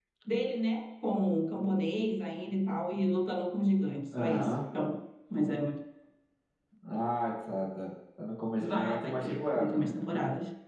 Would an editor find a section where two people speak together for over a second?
Yes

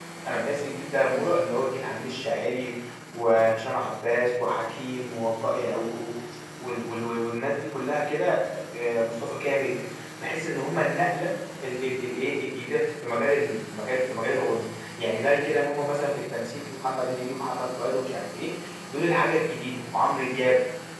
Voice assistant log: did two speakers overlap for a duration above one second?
No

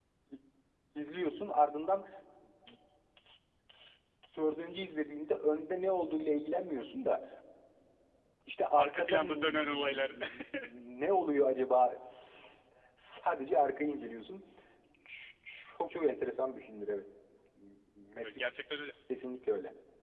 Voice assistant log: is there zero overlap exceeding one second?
No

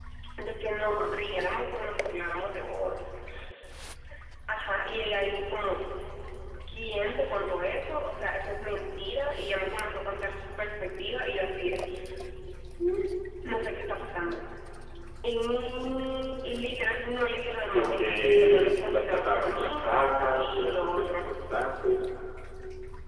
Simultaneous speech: Yes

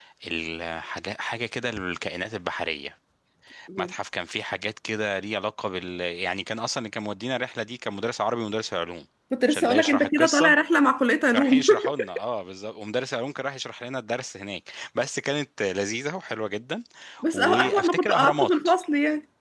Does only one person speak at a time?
No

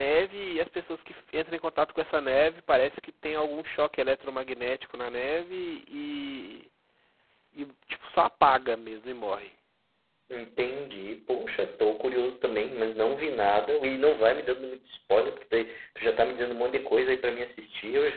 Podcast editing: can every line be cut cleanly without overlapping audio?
Yes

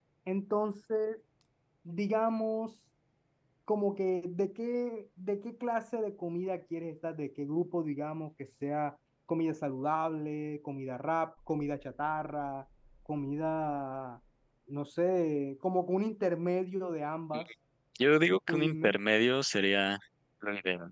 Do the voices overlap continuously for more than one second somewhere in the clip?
No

